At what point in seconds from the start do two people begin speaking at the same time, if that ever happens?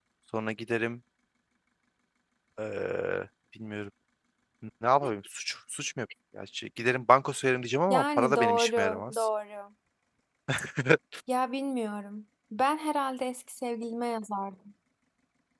8 s

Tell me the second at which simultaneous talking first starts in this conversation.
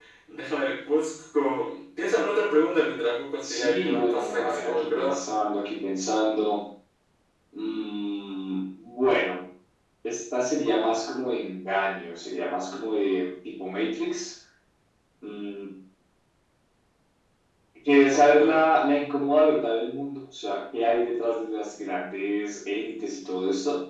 3 s

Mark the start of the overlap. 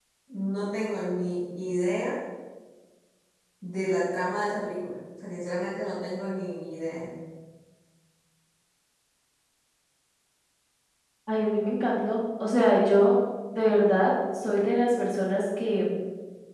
none

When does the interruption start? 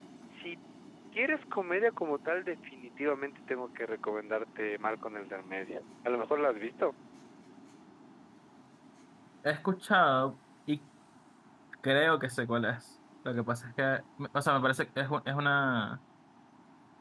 none

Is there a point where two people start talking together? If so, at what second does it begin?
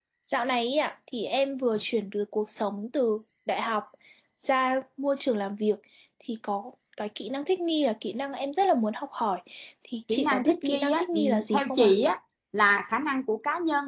10 s

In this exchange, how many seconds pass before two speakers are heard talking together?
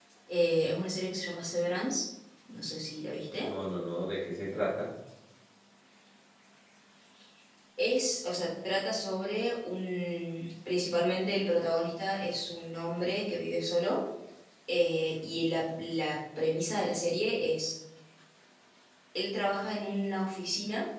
none

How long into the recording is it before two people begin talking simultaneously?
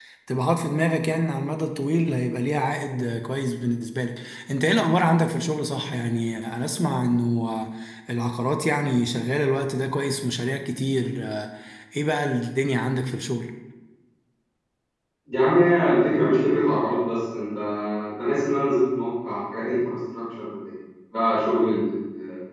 none

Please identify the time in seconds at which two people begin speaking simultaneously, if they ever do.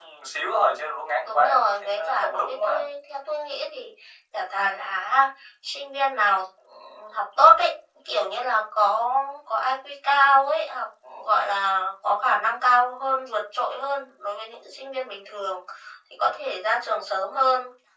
1 s

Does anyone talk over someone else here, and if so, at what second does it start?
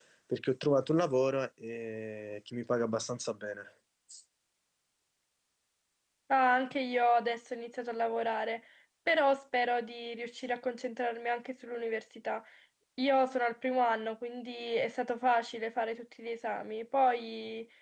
none

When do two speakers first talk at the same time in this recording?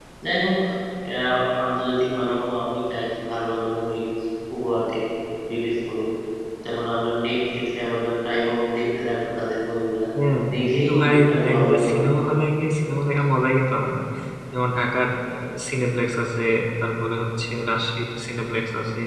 11 s

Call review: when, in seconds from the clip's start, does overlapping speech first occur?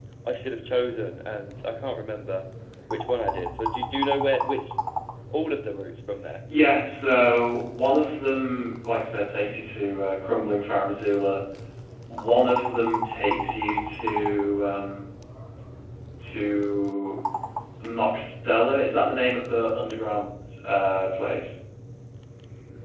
none

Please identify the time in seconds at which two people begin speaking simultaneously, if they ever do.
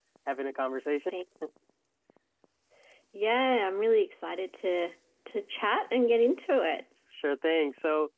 none

